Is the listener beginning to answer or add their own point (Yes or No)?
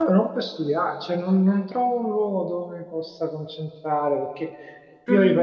No